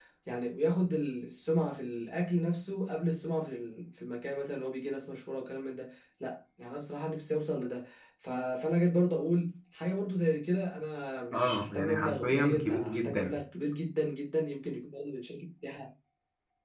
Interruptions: present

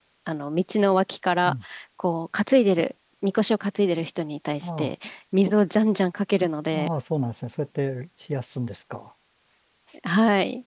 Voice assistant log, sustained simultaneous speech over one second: none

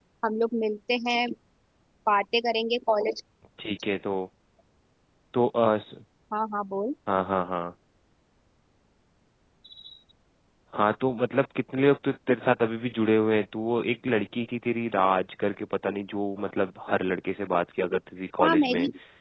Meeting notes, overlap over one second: none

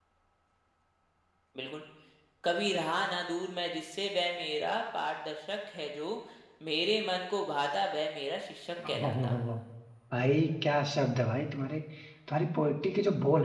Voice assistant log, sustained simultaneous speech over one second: none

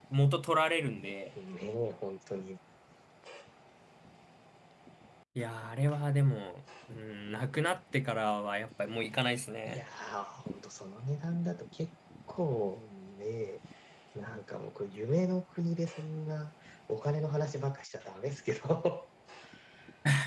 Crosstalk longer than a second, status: none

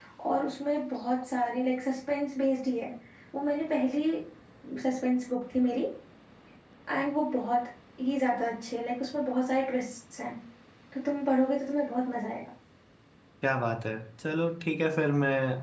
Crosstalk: none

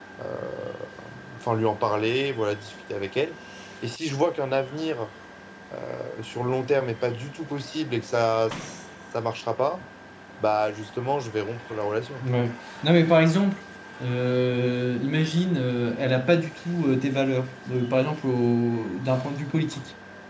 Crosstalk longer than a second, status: none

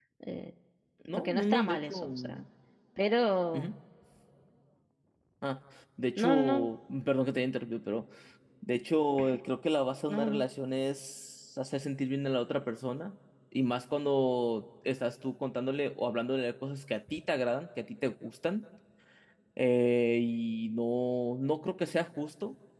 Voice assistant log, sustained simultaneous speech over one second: present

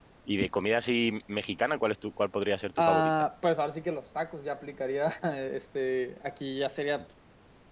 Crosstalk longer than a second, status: none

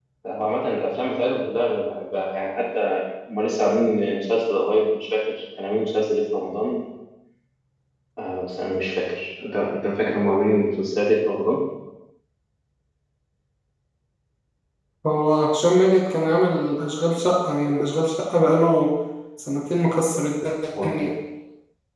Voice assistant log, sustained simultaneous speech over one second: none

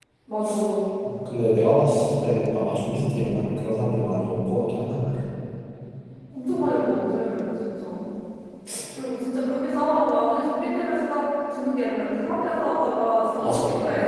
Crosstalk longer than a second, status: none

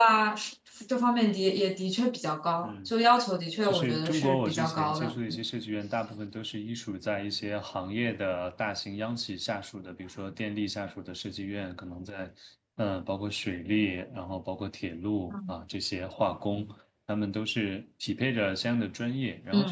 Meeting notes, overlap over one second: present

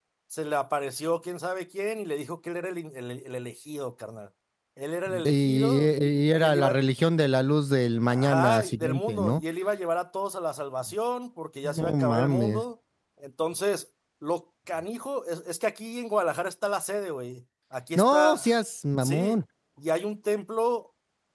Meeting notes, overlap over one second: present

